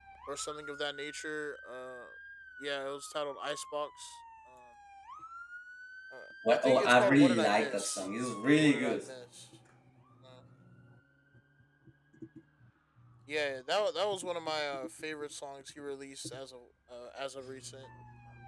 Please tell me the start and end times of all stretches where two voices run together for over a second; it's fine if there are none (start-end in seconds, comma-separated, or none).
6.5-8.1